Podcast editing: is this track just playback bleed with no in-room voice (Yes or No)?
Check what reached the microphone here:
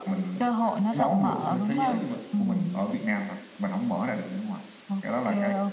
Yes